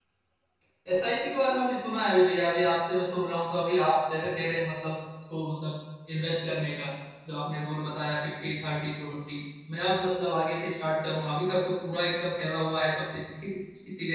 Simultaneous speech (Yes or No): No